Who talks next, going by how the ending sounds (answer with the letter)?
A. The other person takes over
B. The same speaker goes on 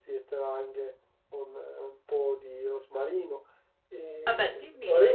B